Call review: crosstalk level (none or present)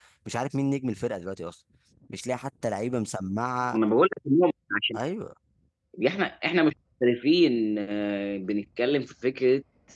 none